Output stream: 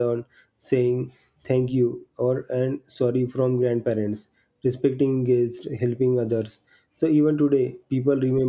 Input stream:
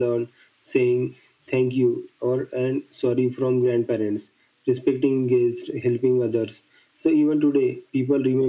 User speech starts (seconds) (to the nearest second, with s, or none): none